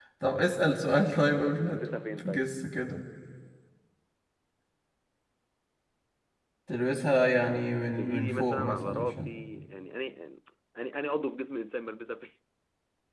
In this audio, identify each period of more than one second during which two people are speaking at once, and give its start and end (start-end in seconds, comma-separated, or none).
7.9-9.3